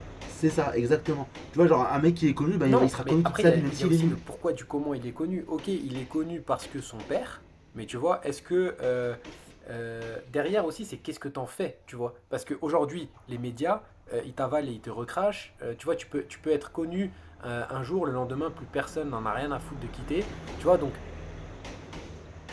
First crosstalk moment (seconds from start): 3 s

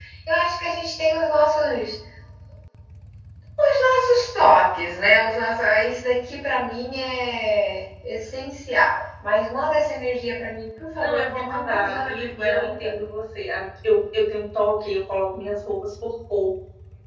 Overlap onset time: 11 s

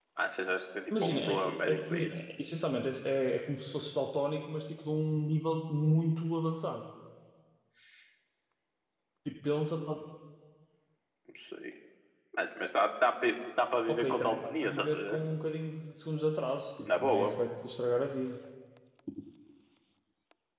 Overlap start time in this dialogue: 1 s

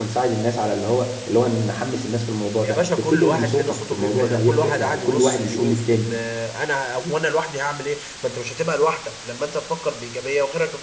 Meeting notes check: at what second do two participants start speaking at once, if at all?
3 s

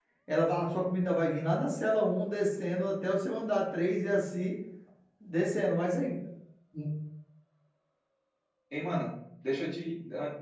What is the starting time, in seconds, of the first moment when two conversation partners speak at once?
none

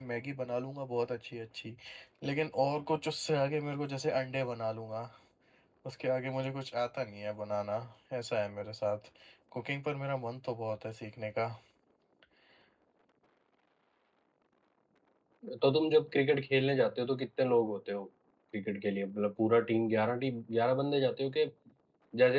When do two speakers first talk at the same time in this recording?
none

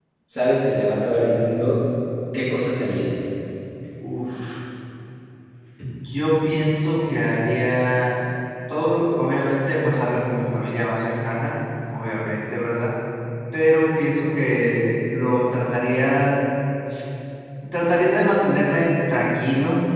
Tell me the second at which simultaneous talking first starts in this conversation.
none

